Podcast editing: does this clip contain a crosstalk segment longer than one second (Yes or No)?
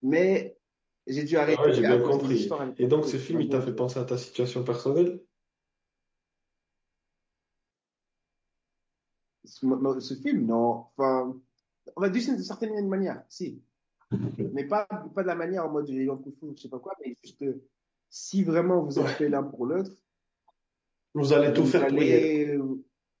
Yes